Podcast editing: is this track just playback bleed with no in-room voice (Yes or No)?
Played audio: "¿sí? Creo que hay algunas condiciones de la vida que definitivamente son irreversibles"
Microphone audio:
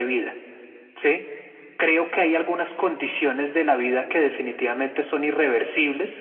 Yes